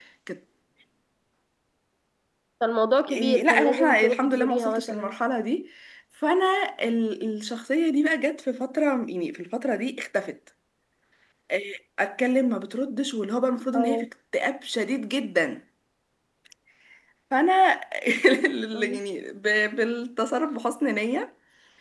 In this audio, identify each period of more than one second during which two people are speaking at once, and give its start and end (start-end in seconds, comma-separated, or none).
3.1-5.2